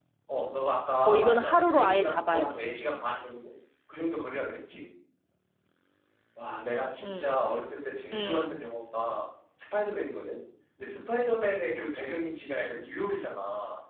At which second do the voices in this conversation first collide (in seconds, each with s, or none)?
1.1 s